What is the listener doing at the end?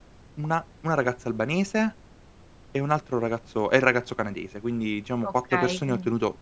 listening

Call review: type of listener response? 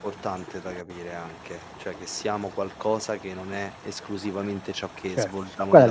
taking over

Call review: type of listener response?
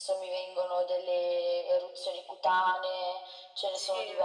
listening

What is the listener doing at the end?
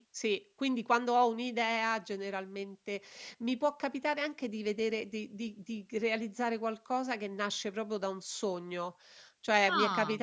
listening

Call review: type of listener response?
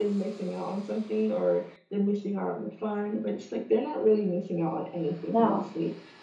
listening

